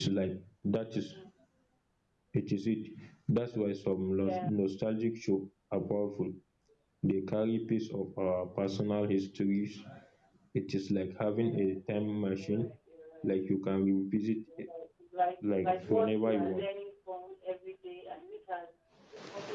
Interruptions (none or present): present